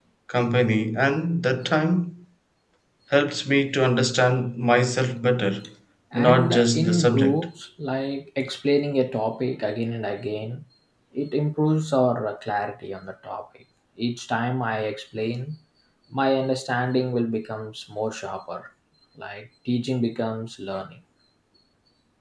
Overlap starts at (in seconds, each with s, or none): 6.1 s